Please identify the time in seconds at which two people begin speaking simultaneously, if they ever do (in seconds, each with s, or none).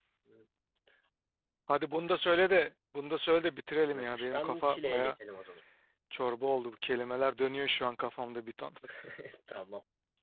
3.9 s